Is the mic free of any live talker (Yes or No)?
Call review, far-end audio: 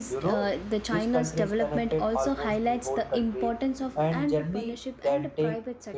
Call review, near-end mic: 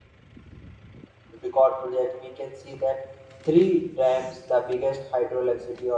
No